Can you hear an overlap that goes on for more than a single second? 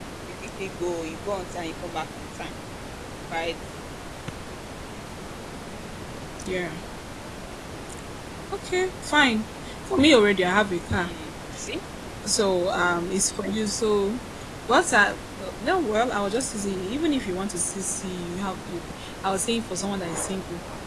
No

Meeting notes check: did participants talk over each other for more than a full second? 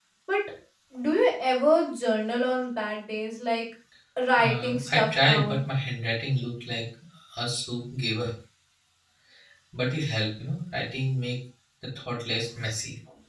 Yes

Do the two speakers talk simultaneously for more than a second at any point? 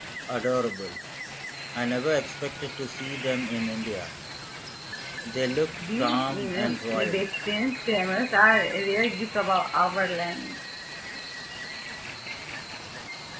Yes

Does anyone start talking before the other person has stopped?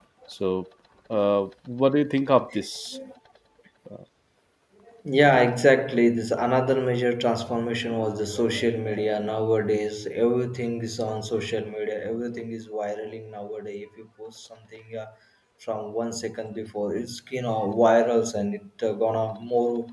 No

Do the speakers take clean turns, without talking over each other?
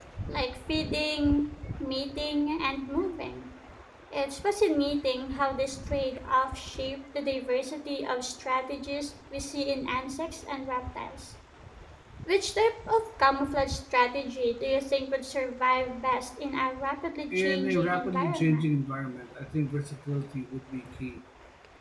No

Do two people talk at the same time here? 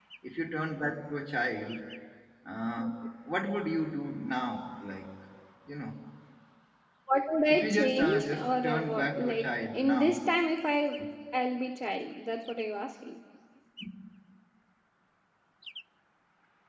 Yes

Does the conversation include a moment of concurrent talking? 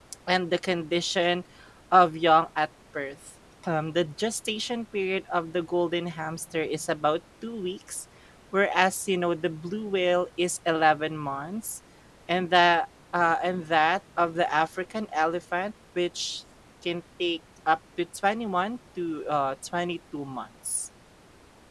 No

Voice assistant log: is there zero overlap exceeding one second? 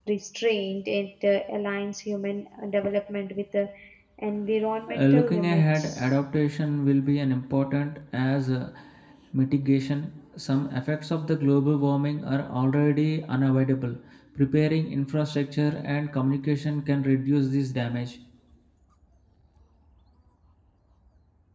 No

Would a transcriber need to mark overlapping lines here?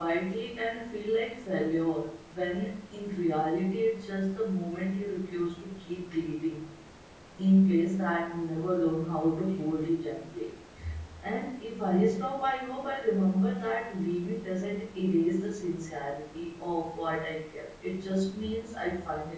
No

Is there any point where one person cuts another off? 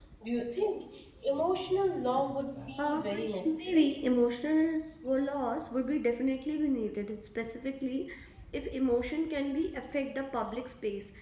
Yes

